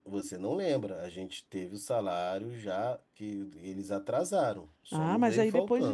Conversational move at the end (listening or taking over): taking over